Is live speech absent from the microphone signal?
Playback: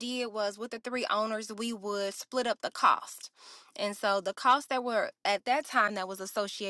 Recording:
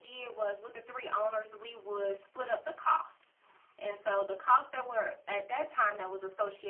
Yes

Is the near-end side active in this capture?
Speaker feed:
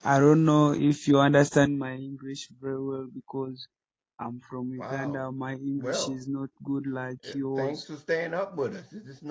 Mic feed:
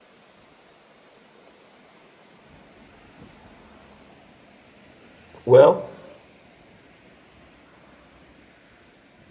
Yes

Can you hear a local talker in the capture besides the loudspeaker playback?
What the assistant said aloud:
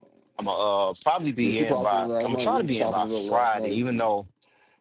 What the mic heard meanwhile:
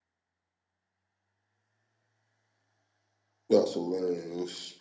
Yes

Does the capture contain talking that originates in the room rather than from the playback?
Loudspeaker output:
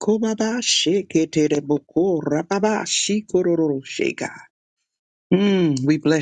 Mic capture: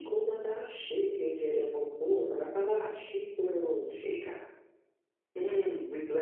No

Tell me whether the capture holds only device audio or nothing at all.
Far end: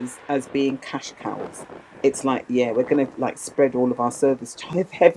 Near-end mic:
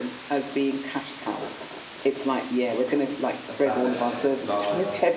No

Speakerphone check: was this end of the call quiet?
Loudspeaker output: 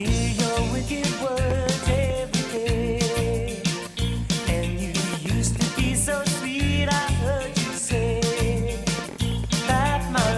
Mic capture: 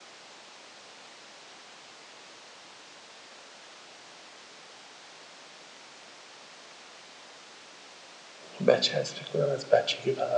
No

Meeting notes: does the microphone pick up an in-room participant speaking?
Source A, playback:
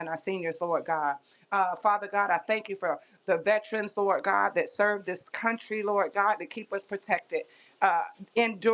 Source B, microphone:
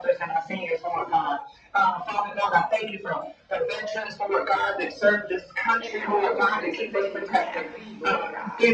Yes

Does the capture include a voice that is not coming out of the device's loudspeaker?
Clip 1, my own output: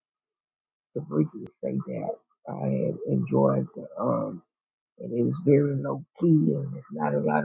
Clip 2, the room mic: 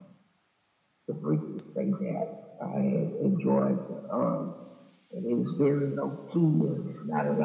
No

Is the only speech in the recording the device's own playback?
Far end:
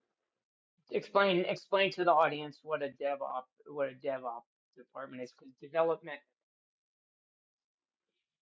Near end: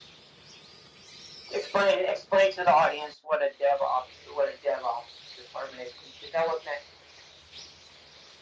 Yes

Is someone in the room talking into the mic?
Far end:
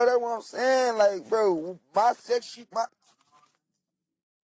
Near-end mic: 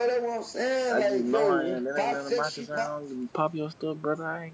Yes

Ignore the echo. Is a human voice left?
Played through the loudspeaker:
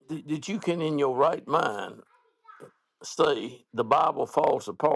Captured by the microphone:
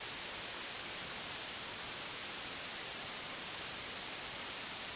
No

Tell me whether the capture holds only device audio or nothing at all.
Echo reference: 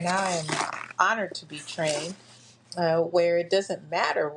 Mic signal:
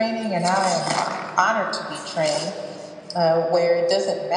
Yes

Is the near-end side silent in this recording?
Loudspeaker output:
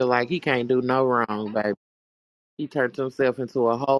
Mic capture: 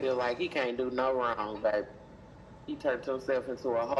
Yes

